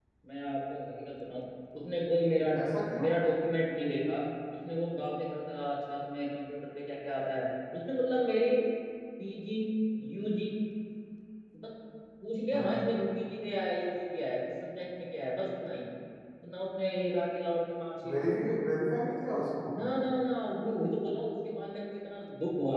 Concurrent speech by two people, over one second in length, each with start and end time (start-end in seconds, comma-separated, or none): none